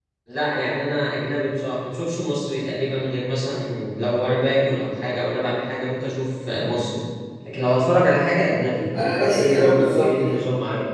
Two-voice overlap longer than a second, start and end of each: 9.1-10.4

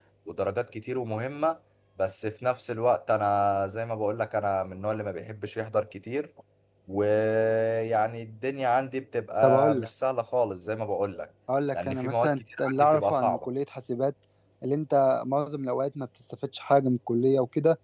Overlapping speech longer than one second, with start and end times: 11.7-13.5

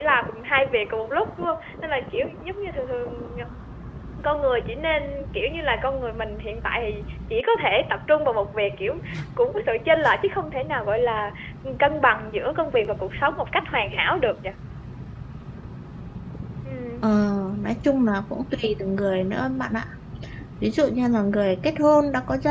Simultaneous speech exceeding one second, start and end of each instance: none

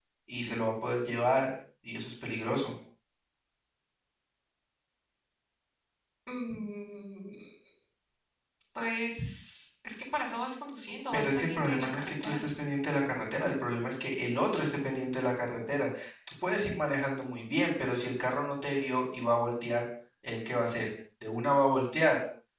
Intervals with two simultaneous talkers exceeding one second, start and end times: 11.1-12.4

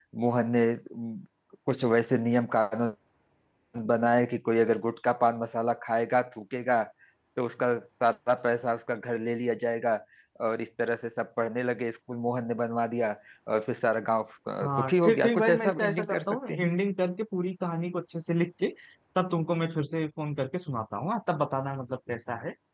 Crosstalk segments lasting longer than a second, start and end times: 14.8-16.7

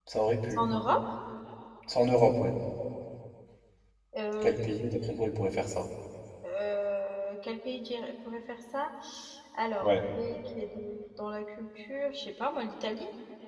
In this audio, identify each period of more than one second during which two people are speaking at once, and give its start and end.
none

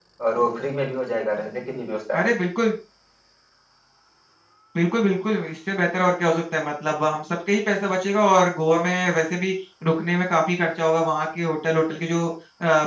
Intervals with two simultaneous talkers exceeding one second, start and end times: none

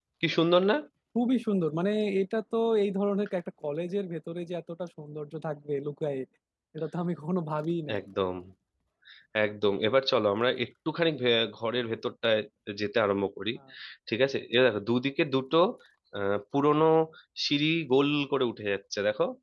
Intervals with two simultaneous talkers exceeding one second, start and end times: none

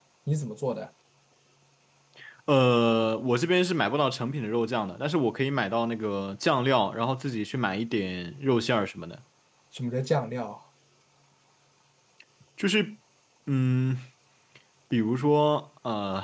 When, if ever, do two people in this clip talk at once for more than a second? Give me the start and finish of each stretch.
none

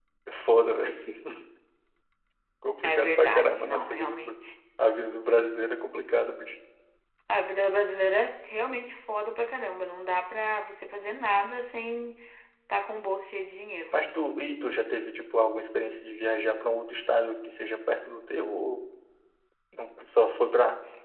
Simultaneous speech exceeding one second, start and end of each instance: 2.8-4.4

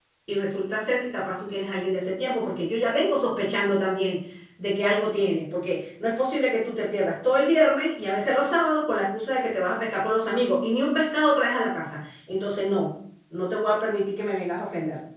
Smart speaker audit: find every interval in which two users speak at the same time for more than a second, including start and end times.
none

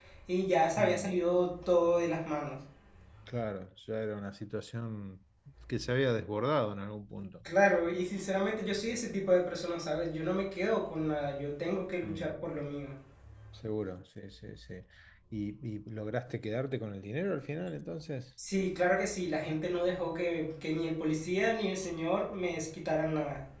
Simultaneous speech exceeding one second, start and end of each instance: none

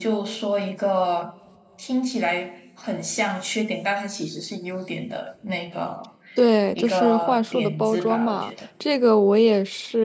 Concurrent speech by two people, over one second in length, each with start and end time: 6.8-8.5

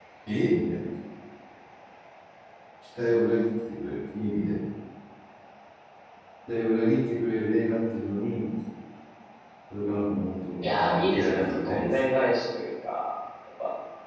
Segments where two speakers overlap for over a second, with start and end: 10.6-12.0

